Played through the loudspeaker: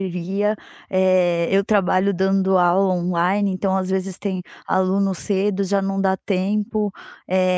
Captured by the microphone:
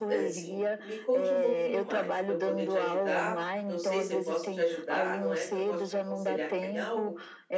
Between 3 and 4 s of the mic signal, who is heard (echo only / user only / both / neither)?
both